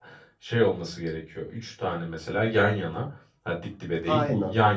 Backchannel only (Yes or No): Yes